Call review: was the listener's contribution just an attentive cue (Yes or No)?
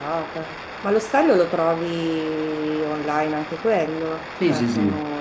No